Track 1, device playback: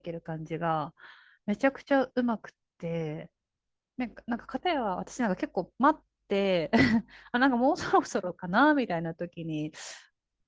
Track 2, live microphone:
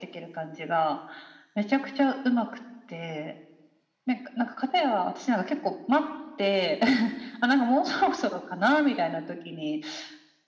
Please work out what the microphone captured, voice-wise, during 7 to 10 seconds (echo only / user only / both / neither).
echo only